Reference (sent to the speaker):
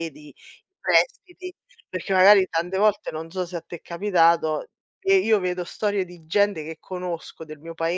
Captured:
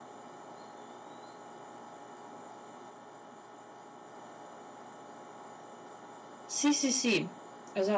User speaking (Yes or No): Yes